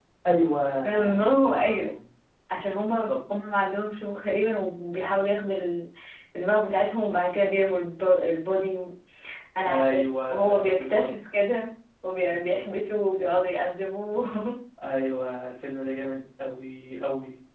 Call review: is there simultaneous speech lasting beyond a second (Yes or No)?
Yes